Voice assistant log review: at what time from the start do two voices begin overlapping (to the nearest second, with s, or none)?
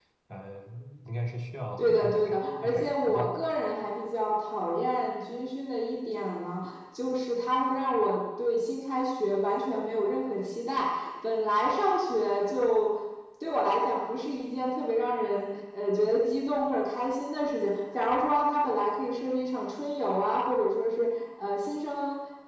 2 s